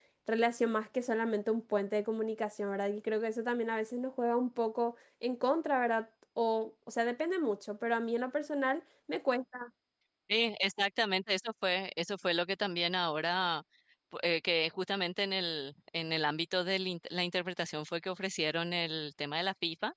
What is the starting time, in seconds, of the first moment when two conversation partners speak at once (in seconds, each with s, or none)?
none